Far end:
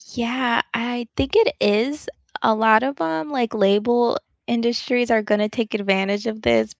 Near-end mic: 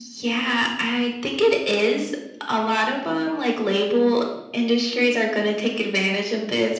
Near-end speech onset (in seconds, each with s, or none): none